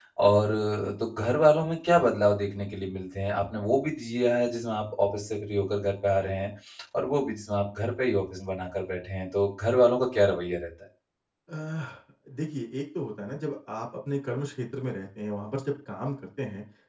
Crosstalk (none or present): none